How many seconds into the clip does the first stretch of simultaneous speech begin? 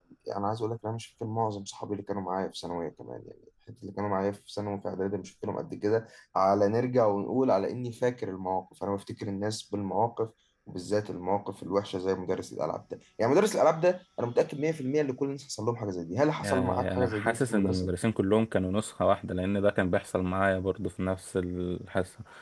16.4 s

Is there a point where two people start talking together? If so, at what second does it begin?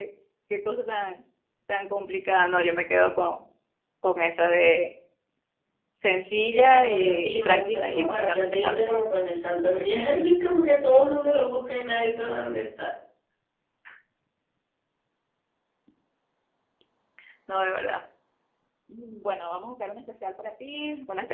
6.5 s

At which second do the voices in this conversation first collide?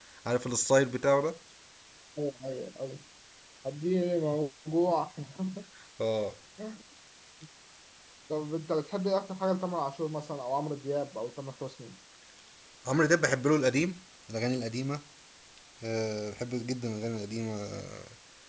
none

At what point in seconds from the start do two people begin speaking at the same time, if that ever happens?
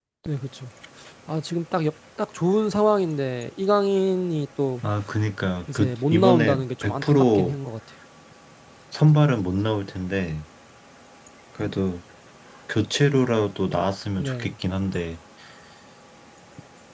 5.8 s

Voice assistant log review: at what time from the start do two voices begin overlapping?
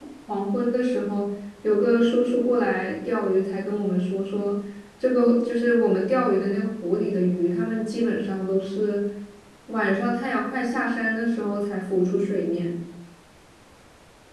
none

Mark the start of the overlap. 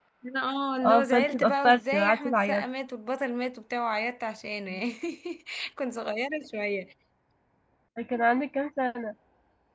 0.8 s

